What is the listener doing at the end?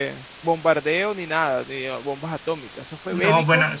taking over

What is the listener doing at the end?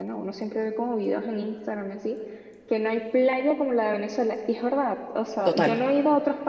listening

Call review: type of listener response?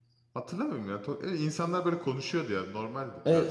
taking over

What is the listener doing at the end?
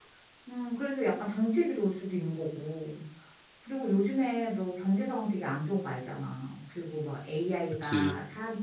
listening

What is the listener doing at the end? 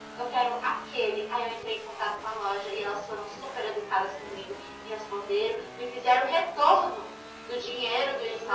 listening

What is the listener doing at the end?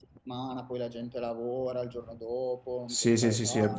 taking over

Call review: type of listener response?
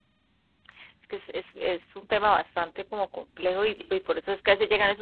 listening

